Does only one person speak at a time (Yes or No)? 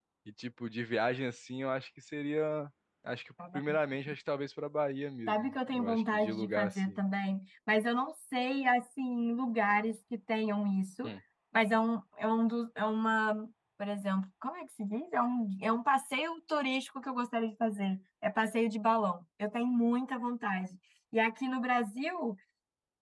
No